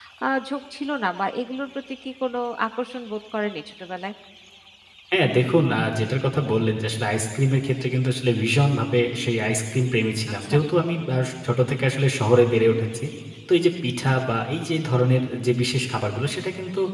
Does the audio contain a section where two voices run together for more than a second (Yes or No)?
No